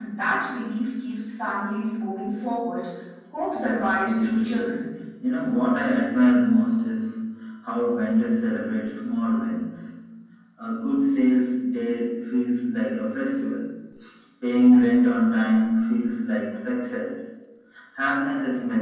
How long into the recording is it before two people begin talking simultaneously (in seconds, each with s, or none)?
3.5 s